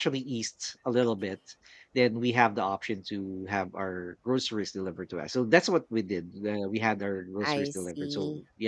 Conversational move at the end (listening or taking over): listening